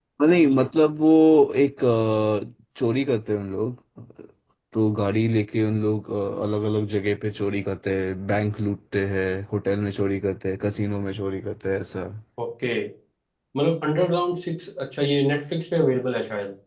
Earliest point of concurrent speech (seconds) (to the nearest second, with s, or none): none